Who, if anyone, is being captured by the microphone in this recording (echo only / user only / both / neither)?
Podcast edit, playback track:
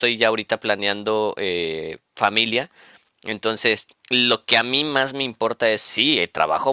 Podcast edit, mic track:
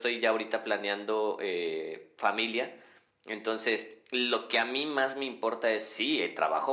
echo only